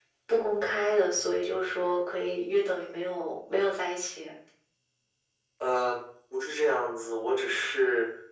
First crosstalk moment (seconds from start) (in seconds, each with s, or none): none